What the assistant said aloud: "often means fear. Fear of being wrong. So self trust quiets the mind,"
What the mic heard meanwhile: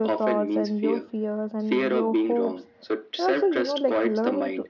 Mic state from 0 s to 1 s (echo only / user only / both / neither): both